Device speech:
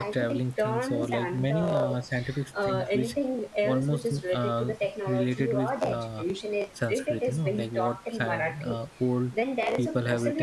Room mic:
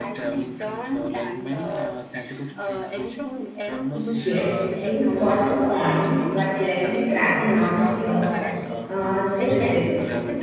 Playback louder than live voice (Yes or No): No